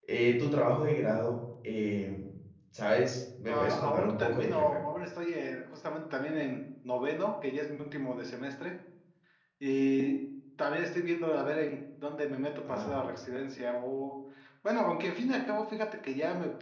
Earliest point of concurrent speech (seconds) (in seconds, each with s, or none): 3.5 s